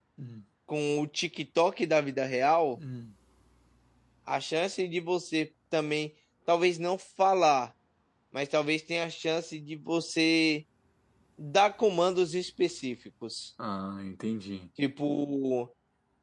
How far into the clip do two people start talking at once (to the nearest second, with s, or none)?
none